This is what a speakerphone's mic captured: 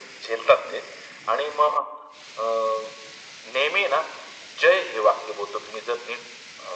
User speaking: No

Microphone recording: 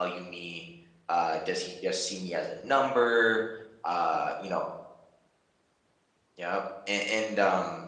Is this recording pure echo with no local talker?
No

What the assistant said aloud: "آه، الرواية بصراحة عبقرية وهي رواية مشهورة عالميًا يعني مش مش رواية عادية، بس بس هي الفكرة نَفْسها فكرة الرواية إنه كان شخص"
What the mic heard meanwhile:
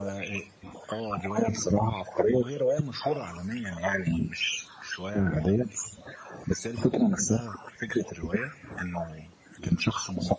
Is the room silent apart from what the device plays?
Yes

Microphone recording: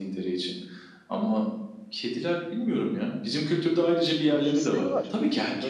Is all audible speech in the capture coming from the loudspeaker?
No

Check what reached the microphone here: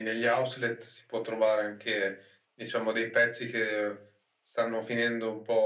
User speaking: No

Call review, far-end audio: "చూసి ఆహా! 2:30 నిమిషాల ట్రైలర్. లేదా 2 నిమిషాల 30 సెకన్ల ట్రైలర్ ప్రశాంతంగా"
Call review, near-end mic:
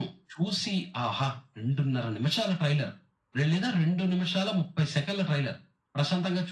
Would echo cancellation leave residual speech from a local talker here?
No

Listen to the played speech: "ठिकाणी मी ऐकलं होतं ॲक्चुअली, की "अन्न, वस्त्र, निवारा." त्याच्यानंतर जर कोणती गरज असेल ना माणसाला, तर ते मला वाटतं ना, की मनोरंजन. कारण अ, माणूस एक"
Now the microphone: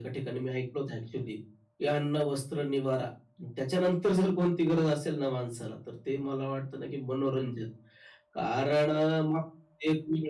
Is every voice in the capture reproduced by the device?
Yes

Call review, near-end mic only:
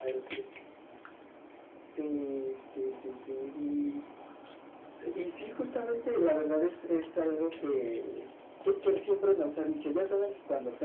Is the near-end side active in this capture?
No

